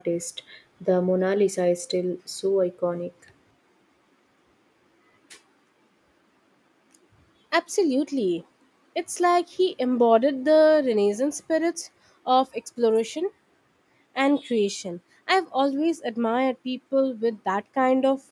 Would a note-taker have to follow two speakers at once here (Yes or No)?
No